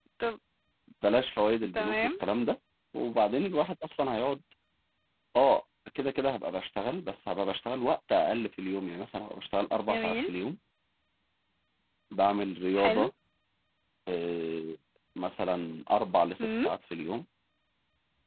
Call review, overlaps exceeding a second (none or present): none